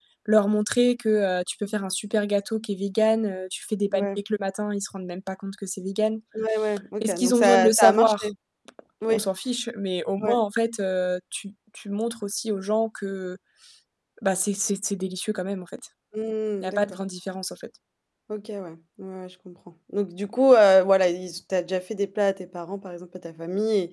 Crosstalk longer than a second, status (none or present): present